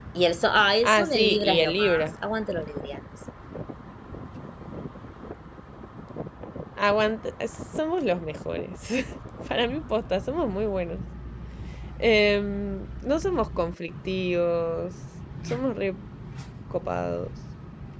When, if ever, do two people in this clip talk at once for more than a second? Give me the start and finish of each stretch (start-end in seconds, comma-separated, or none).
0.8-2.0